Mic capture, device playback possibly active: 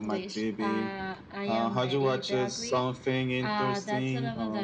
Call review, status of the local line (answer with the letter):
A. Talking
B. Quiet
B